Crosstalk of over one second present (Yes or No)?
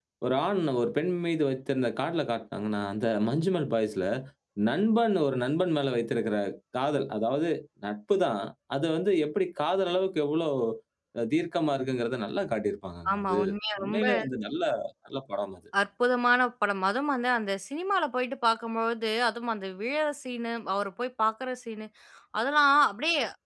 No